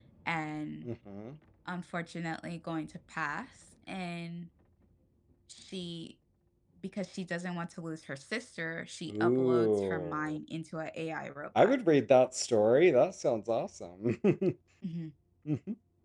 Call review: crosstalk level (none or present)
present